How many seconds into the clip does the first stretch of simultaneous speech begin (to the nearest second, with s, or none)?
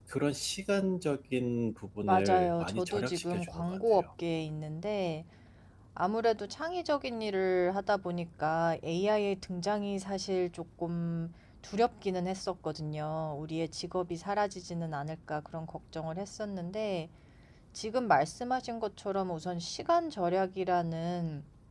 2 s